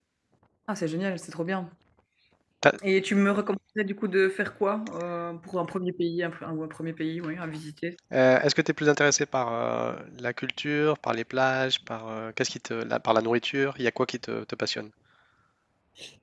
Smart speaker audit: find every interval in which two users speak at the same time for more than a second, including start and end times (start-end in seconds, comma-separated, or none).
none